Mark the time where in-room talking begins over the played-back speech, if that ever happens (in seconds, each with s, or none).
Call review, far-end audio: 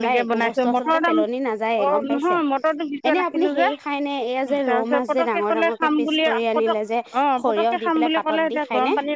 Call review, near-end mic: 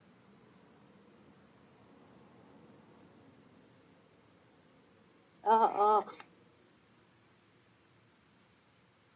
5.5 s